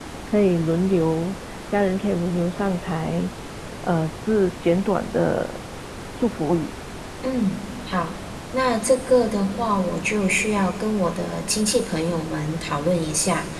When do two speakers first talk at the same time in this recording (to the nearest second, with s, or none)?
none